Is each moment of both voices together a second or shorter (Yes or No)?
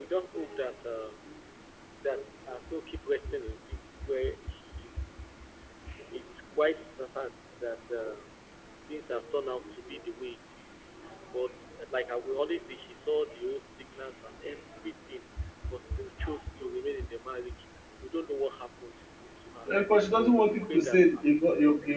No